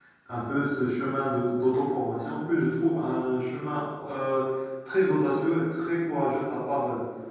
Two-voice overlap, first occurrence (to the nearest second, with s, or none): none